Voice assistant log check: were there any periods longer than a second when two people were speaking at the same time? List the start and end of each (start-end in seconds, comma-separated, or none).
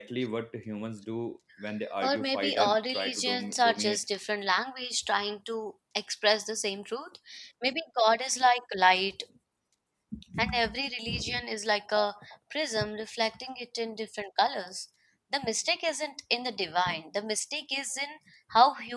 2.0-4.0